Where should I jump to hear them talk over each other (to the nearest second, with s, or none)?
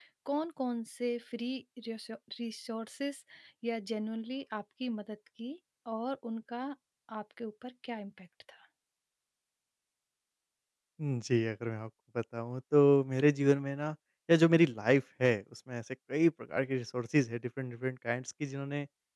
none